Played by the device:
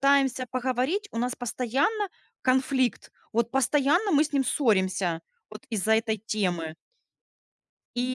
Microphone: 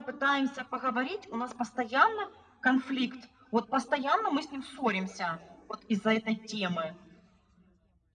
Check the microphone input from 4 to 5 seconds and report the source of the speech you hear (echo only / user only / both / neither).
echo only